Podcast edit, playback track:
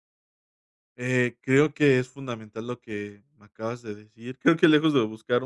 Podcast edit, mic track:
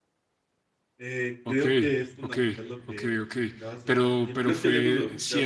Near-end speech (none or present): present